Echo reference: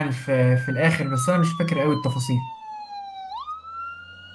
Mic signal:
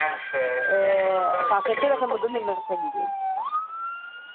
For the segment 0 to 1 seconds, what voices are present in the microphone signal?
both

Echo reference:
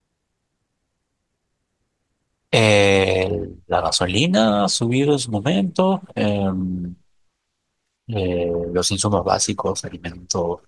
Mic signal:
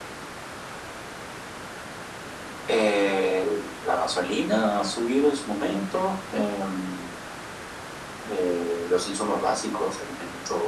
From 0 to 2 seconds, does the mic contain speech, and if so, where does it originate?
neither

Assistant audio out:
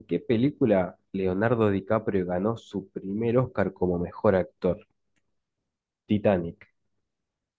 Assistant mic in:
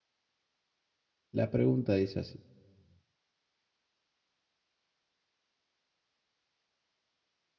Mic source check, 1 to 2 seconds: user only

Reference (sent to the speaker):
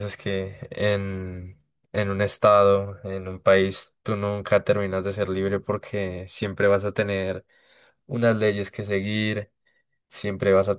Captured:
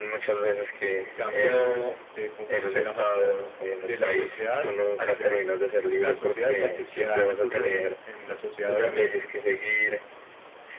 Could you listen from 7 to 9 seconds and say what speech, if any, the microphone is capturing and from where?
both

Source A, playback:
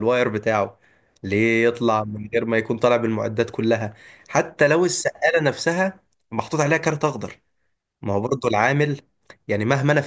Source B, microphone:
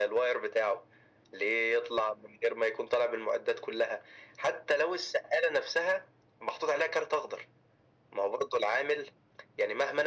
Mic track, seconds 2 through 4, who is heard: echo only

